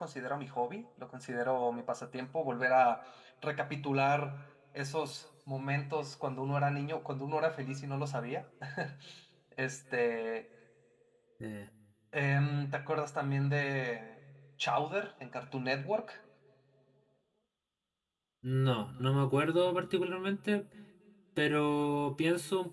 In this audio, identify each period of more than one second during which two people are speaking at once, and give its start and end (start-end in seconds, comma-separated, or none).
none